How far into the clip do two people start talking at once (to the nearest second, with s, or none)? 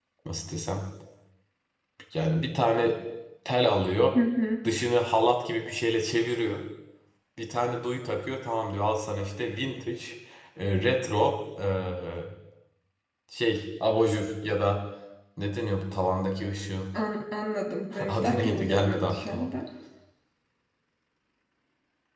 18 s